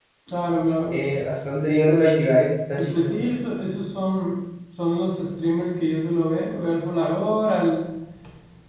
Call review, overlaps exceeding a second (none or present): none